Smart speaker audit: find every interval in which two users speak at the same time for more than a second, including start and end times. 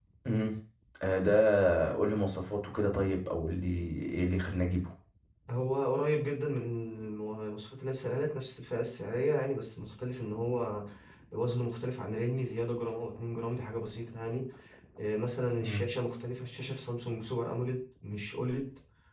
none

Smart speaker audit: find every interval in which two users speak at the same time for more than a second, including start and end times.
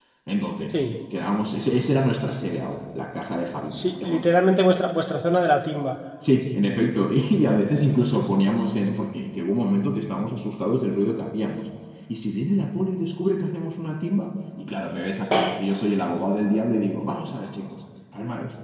none

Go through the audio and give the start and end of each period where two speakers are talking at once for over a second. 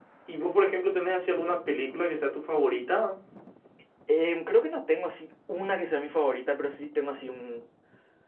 none

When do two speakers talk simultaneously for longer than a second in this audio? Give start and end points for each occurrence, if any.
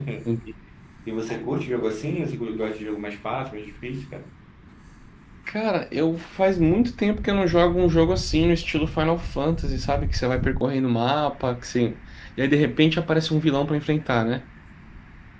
none

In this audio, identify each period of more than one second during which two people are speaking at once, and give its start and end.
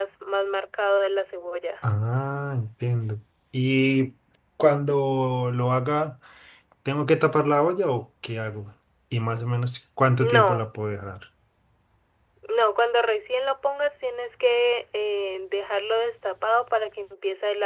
none

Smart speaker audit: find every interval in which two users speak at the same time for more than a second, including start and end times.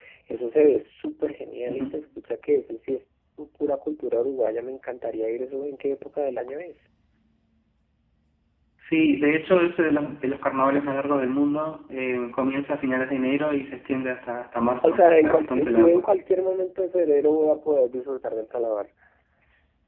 14.8-16.0

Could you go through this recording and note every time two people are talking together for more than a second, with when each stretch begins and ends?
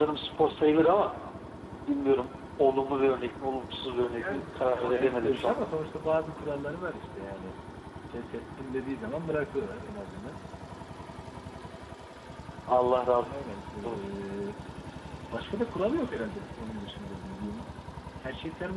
4.2-5.7

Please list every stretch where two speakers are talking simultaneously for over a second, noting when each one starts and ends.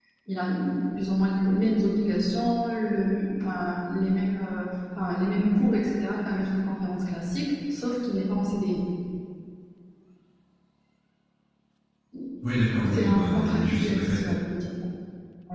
12.9-14.4

